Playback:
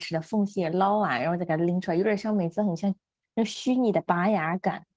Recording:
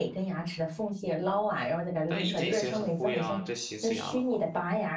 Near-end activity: present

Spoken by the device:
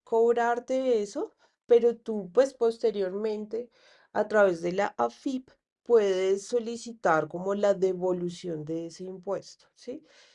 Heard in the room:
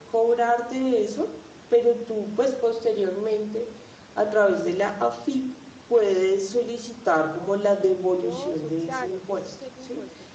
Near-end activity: present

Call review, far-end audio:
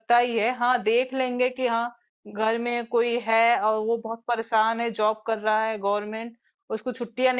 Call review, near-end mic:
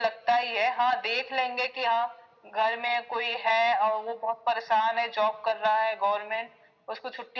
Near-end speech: none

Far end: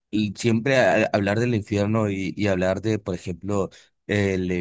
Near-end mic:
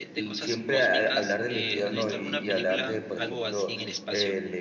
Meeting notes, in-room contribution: present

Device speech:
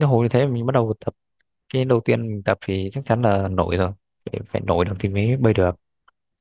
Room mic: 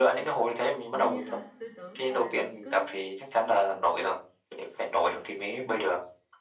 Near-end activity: present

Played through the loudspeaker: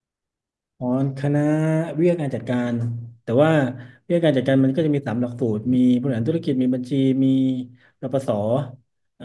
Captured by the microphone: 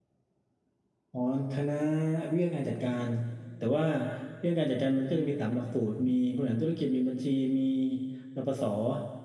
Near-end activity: none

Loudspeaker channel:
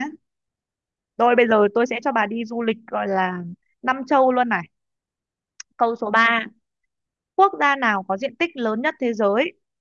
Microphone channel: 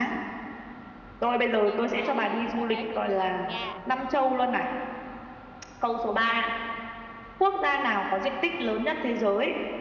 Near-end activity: present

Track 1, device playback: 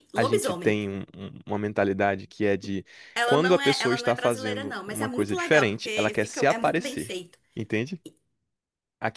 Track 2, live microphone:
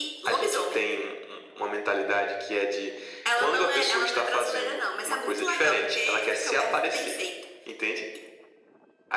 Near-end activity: none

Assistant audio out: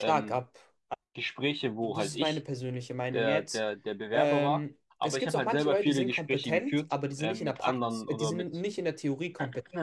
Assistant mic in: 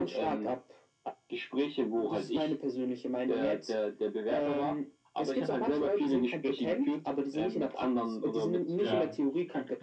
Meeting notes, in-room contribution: present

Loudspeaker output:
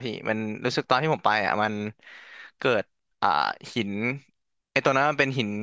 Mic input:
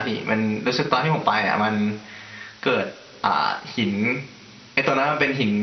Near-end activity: none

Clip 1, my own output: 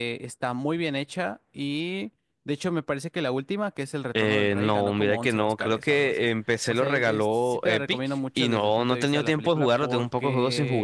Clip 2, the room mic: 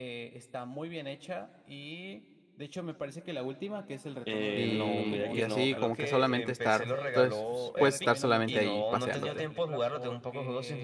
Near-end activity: present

